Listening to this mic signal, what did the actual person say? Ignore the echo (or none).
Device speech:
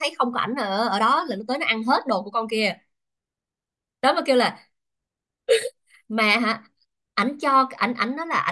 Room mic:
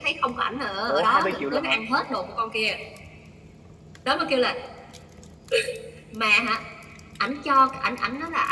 Ủa 20 triệu lần hả?